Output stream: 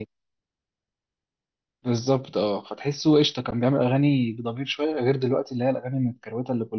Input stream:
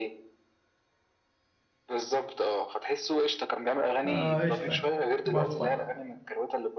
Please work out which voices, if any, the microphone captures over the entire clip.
both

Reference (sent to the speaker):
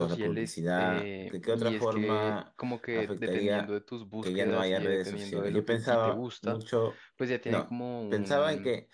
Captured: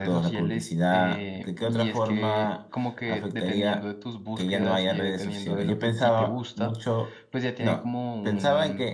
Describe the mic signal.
echo only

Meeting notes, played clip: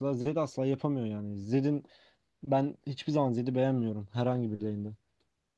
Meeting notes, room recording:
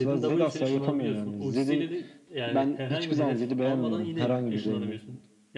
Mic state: both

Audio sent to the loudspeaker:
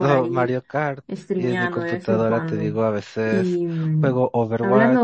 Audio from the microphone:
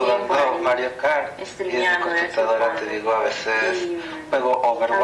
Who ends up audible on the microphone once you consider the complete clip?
echo only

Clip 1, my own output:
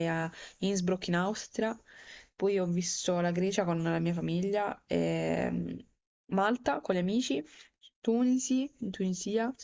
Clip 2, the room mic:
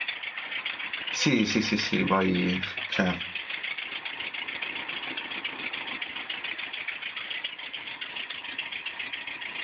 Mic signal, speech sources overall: user only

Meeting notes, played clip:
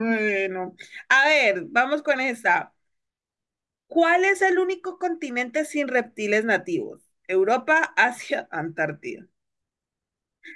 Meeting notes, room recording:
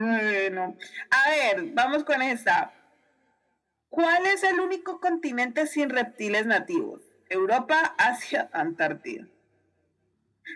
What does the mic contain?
echo only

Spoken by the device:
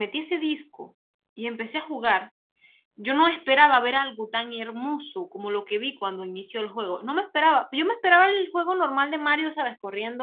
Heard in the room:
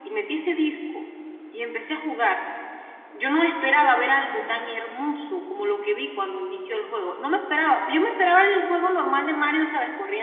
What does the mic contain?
both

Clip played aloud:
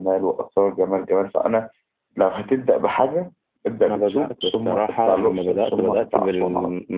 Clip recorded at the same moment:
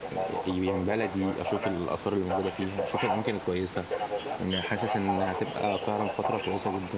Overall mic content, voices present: both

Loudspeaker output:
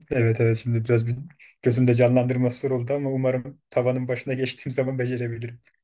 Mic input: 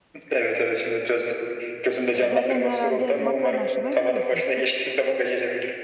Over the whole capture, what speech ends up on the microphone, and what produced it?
both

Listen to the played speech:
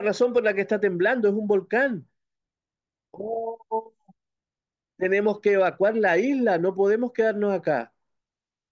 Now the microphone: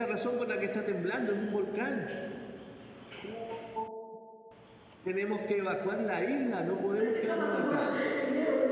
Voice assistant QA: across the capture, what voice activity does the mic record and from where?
both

